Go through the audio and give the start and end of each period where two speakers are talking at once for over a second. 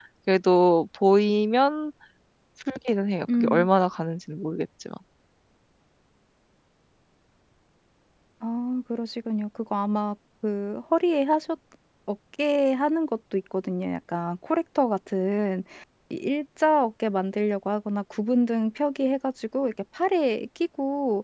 none

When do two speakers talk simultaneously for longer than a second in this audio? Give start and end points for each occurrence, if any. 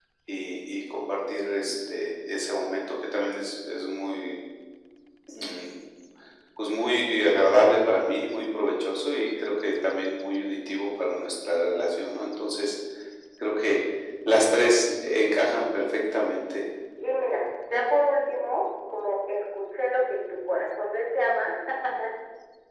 none

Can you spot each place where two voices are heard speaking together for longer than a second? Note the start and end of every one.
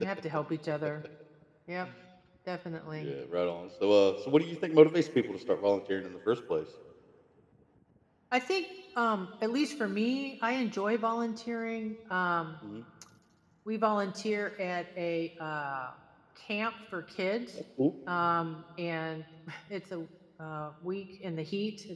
none

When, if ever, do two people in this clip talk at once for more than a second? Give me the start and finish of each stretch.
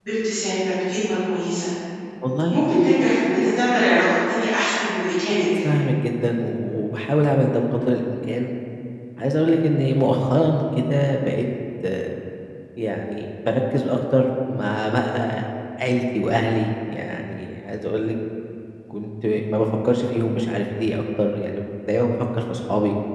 none

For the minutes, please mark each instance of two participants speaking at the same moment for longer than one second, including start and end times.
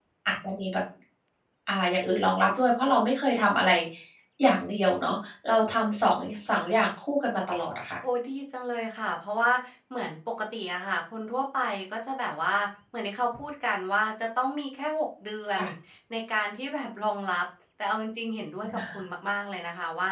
none

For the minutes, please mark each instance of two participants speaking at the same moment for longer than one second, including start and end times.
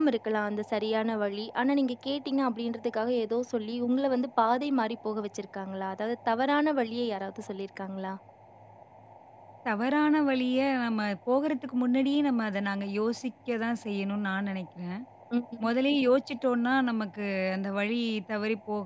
none

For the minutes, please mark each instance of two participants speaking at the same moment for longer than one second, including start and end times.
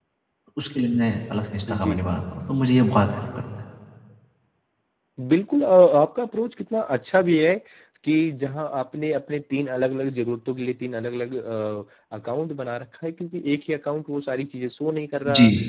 none

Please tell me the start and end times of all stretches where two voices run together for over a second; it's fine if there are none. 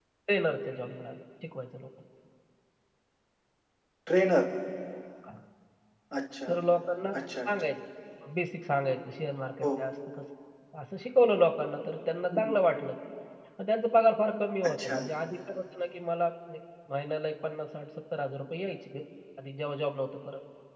none

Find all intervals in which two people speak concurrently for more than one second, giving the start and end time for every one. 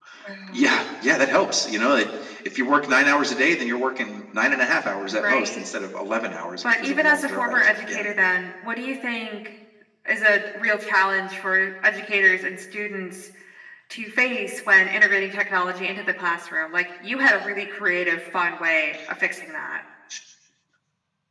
6.8-8.1

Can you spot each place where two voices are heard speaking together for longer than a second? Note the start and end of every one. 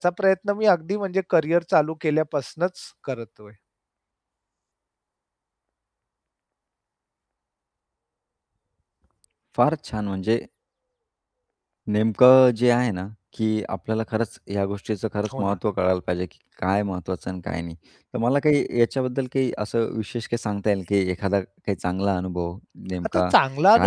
none

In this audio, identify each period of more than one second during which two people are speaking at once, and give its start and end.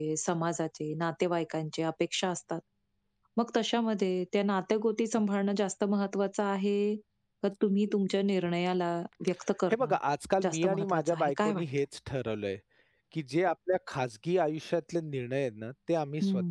10.4-11.6

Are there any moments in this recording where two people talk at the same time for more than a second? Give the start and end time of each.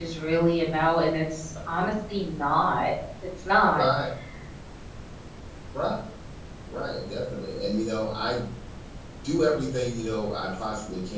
none

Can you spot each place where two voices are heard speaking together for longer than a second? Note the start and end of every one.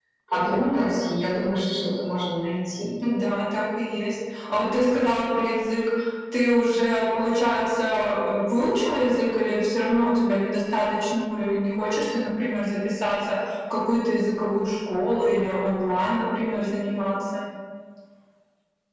none

